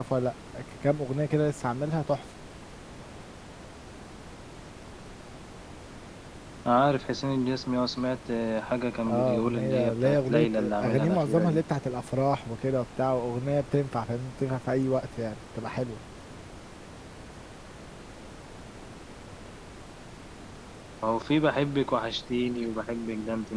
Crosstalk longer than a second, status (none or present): present